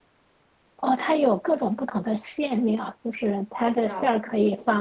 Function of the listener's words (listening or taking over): listening